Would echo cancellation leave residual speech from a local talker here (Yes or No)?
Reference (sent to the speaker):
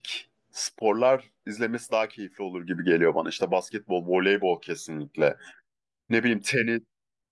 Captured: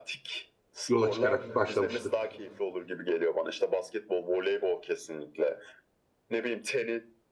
Yes